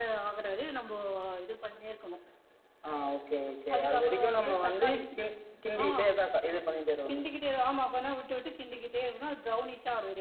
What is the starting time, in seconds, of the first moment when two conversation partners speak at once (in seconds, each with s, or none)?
3.8 s